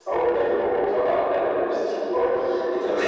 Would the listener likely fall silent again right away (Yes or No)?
Yes